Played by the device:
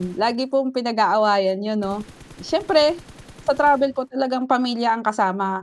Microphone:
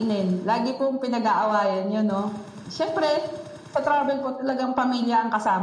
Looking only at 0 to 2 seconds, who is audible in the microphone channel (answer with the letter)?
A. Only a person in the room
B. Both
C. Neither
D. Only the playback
D